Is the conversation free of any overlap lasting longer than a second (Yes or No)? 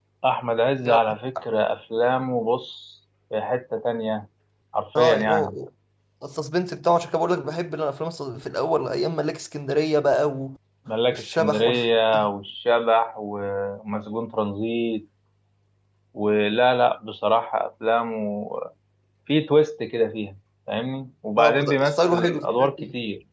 No